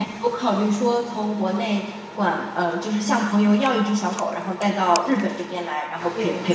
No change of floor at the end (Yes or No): Yes